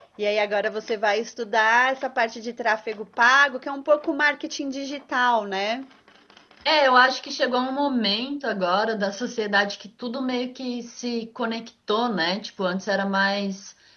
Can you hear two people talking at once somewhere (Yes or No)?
No